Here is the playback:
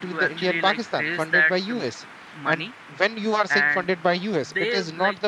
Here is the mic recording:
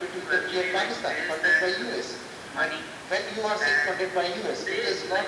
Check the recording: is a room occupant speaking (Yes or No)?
No